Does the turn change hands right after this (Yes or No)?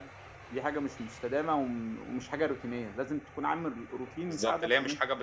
Yes